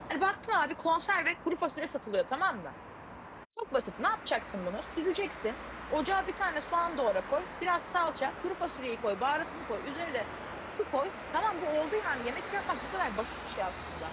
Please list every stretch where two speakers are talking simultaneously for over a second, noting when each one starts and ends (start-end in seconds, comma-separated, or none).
none